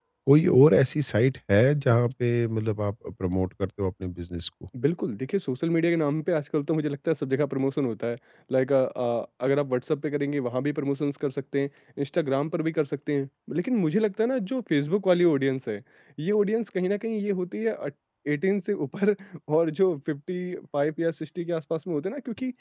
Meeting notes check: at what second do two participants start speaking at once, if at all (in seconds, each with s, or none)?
none